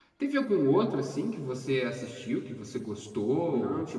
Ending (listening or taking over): taking over